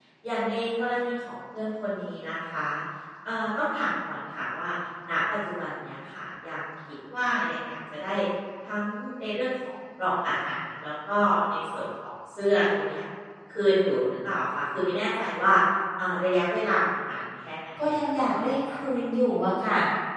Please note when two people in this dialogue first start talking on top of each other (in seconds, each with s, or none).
17.8 s